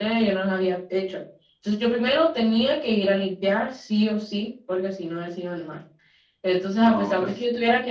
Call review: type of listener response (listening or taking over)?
listening